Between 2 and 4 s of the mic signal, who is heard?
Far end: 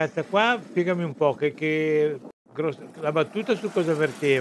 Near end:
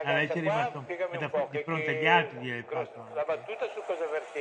both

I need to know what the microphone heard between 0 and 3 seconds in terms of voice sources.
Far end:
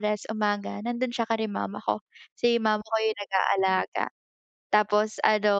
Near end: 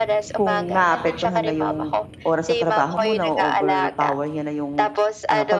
both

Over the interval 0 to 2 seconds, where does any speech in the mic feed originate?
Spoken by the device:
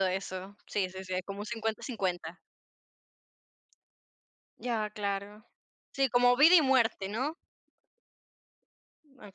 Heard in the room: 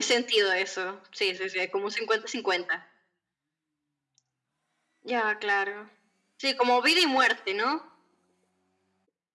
echo only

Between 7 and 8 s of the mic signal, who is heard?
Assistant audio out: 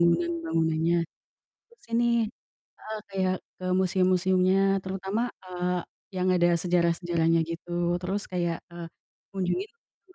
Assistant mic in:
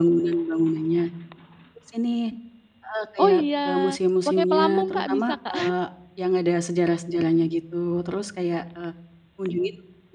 echo only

